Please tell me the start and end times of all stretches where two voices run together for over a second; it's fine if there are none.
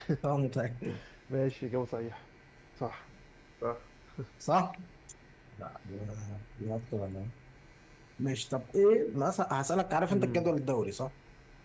none

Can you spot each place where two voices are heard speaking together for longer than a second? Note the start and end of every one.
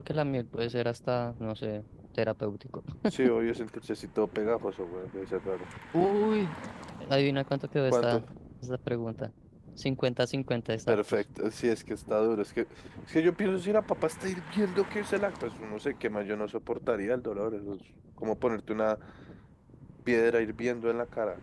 none

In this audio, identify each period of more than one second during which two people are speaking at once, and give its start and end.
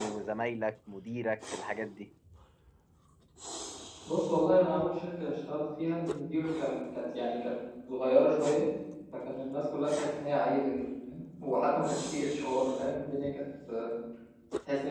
none

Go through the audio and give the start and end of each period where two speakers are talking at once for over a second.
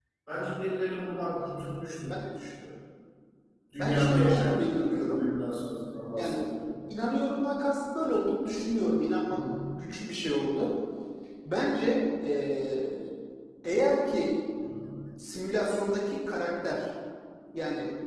3.8-5.2

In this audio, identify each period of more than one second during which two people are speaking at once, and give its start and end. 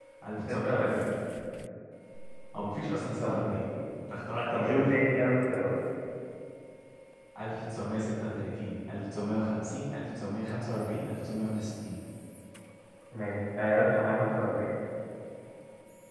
none

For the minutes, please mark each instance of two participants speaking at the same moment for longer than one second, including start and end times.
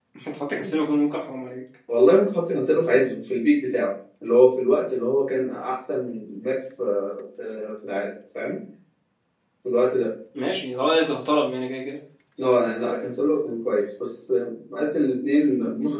none

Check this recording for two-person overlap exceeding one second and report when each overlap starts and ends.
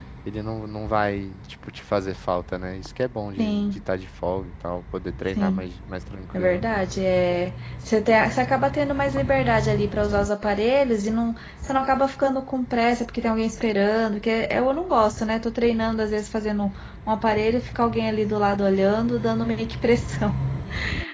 none

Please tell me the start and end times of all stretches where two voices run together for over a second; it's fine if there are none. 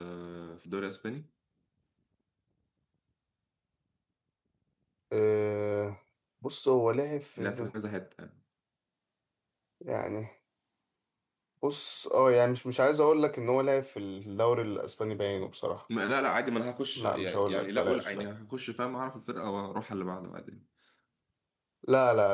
17.0-18.2

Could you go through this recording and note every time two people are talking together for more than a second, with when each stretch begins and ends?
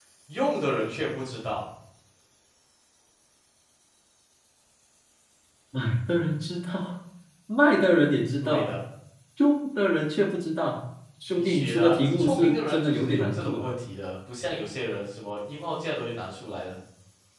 11.4-13.7

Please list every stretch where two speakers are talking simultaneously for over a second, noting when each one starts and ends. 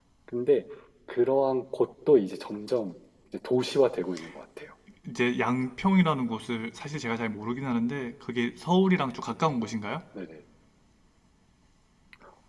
none

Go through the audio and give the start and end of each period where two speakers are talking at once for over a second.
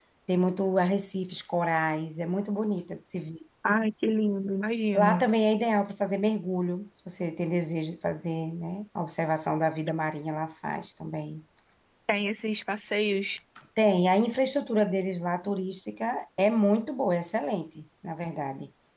none

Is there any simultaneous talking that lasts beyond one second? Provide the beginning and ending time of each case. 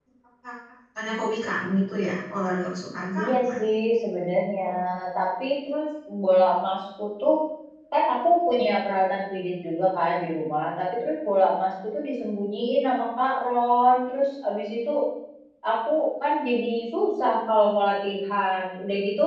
none

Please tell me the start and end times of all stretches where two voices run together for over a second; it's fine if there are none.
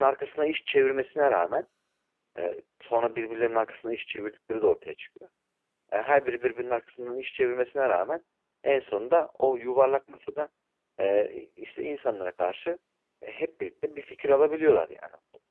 none

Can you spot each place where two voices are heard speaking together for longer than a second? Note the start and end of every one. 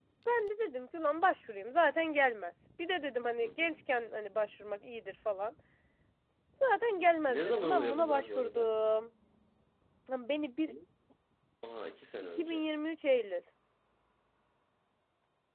7.3-8.7

